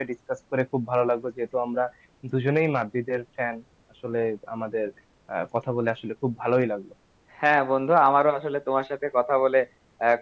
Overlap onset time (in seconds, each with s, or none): none